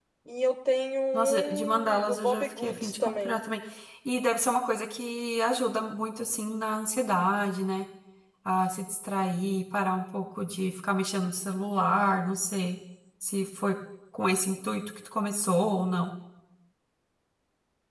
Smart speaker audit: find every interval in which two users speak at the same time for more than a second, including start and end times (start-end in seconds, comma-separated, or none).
1.1-3.4